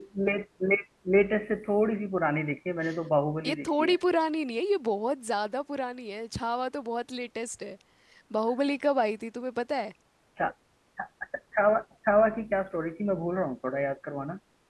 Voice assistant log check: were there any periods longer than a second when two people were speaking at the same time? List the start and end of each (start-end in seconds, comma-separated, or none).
none